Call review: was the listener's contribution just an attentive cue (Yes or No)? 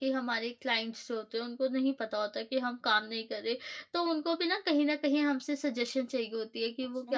Yes